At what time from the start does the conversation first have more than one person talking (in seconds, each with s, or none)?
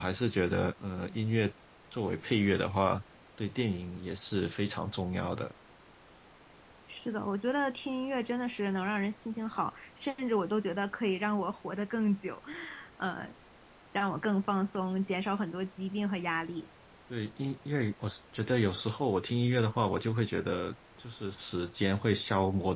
none